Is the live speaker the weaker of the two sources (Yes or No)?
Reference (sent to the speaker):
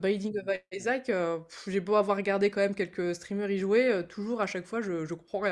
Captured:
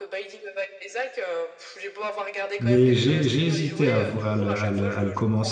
No